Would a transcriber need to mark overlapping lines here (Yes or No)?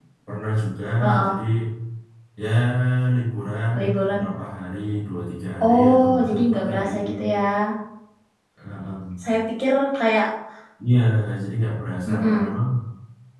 Yes